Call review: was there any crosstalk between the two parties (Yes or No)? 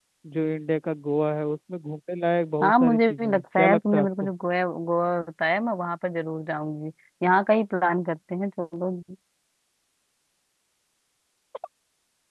Yes